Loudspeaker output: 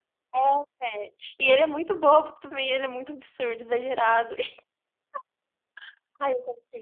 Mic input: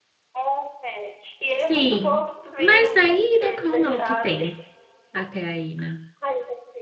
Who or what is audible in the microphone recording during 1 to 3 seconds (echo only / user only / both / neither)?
both